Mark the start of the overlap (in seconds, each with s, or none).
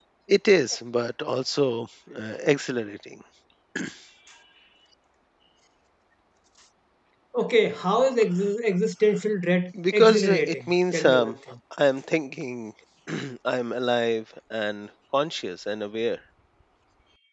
9.7 s